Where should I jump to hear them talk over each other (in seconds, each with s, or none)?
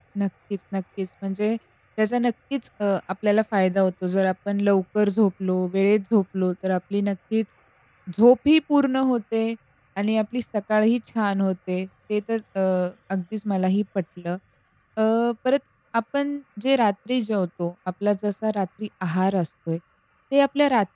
none